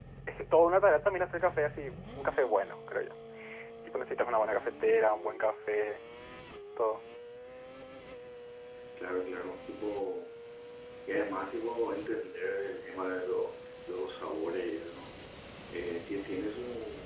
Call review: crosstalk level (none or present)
none